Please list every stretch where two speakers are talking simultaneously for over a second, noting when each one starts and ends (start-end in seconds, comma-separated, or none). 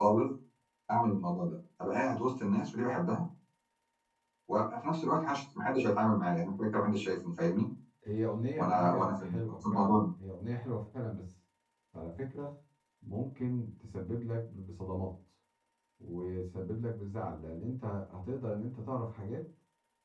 8.6-10.0